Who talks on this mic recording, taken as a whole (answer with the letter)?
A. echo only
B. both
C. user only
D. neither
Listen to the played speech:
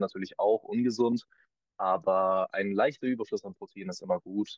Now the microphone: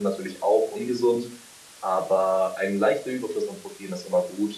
A